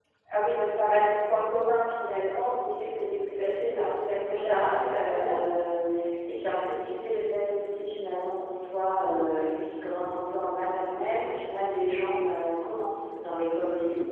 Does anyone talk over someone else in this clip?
Yes, from 3.4 s

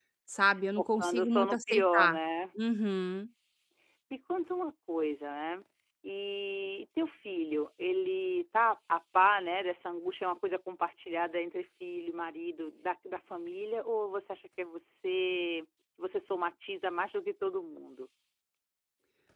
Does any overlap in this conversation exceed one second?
Yes, from 0.8 s

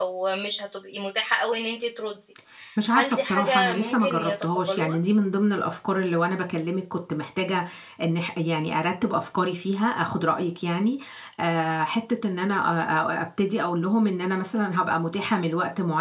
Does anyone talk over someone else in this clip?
Yes, from 2.9 s

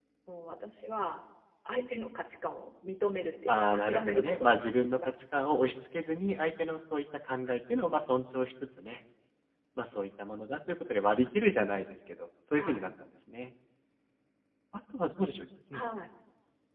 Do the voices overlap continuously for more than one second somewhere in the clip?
Yes, from 3.5 s

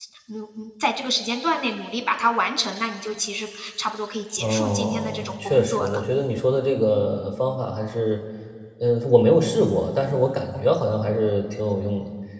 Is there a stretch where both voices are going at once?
Yes, from 4.4 s

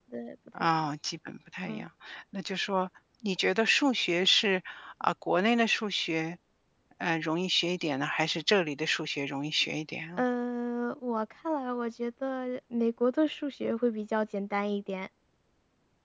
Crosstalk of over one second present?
No

